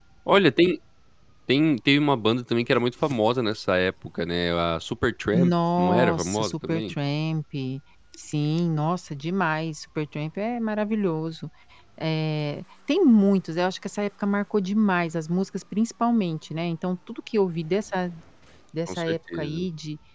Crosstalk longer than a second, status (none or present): present